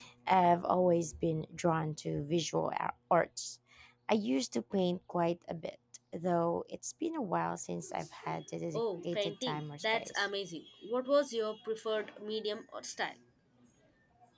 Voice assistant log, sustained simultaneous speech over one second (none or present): present